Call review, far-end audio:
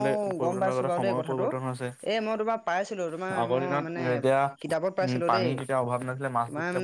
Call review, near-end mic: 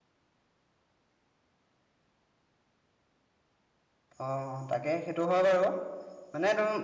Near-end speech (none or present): present